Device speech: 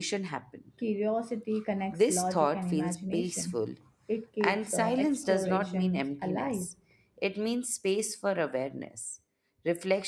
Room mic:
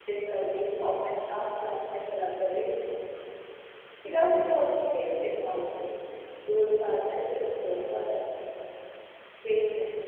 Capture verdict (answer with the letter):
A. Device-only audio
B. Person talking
B